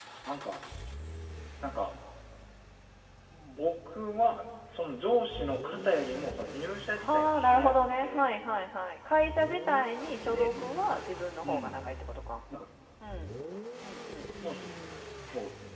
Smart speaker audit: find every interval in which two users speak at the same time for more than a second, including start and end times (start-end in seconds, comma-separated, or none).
7.0-8.4